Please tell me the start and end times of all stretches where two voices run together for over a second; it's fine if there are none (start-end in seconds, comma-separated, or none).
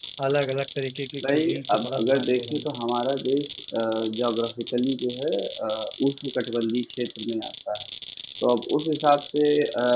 1.3-2.6